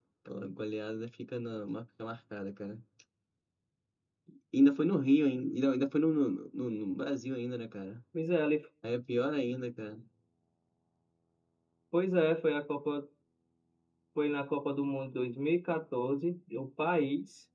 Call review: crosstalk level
none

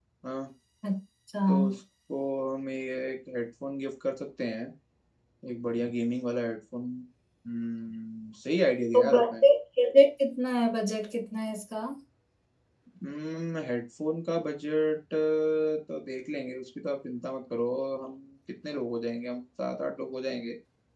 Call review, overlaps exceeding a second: none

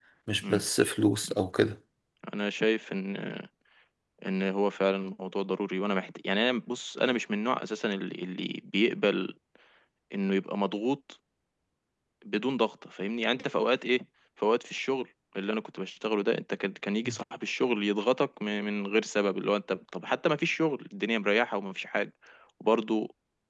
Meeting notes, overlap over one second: none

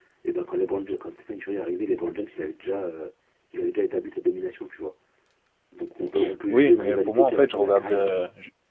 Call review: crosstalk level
present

